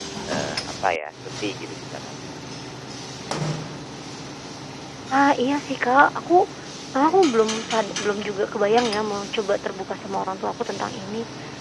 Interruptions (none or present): none